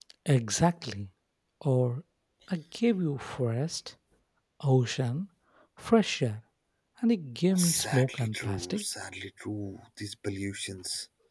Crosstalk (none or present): present